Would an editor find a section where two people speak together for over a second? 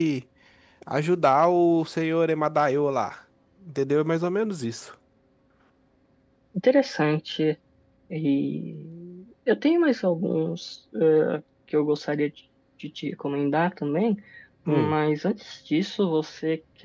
No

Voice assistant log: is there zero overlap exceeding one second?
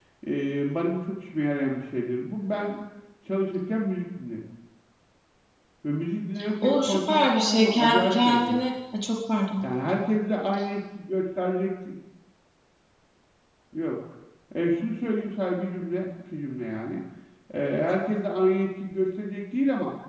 No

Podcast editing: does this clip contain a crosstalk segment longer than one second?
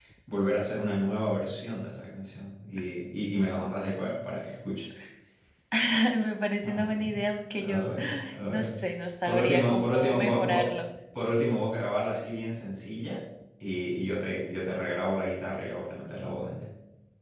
Yes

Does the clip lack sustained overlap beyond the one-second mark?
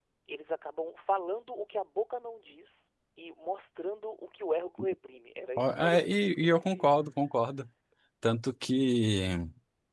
No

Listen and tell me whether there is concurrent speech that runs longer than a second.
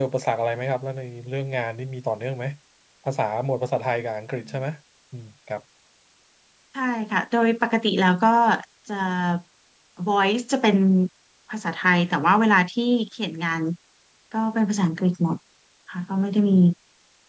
No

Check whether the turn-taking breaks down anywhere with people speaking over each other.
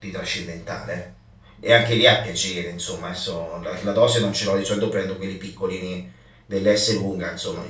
No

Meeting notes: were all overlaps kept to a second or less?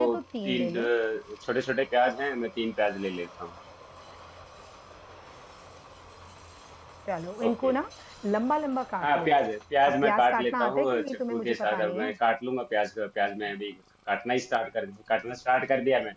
No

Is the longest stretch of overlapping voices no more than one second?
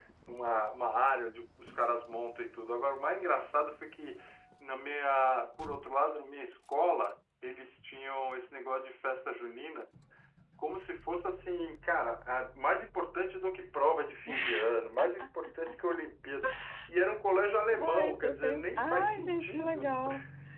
No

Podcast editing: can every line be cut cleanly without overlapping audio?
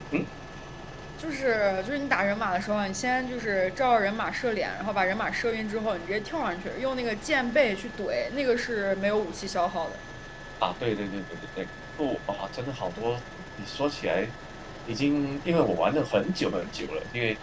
Yes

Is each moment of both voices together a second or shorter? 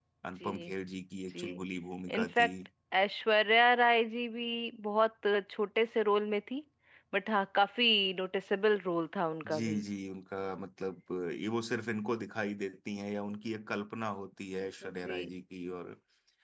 Yes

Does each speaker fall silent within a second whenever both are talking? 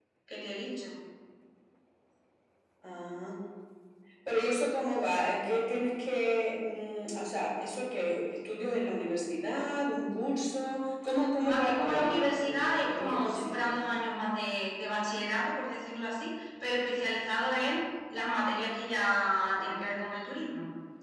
No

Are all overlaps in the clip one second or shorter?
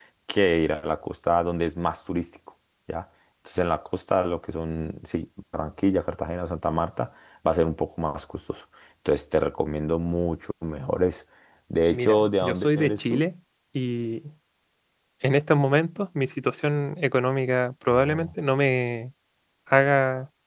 No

